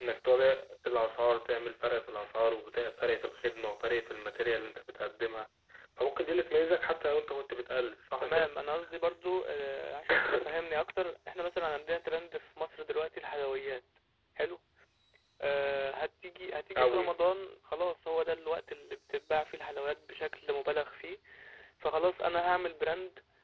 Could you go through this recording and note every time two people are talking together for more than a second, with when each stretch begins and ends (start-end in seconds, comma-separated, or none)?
none